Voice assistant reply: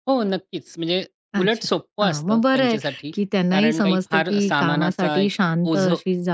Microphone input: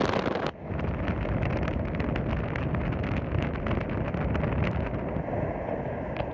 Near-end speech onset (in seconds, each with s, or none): none